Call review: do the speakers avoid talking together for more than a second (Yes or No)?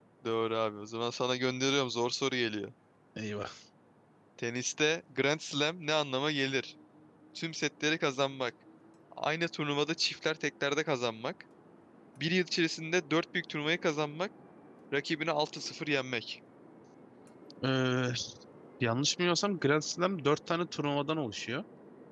Yes